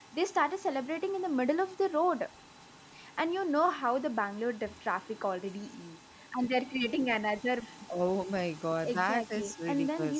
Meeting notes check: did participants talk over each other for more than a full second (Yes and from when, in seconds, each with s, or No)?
Yes, from 8.8 s